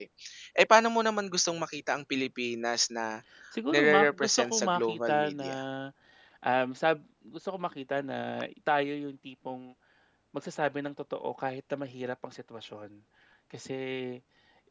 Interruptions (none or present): present